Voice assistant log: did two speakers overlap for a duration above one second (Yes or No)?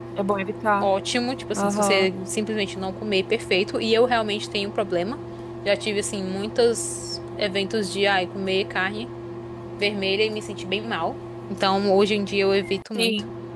No